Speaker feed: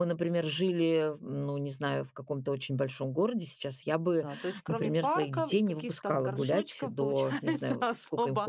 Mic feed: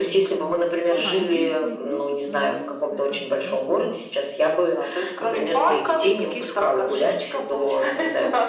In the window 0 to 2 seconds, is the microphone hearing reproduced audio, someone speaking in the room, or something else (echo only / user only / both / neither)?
both